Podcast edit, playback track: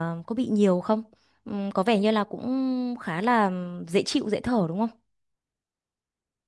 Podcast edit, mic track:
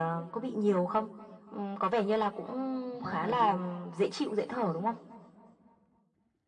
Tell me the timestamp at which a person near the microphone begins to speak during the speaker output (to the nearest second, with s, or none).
3 s